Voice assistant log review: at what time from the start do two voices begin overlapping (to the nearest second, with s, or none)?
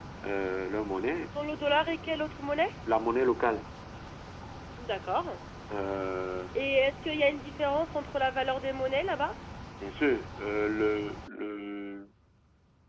none